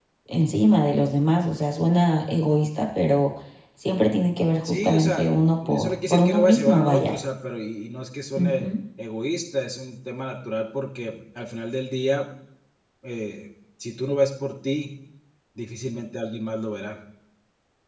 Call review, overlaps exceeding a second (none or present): present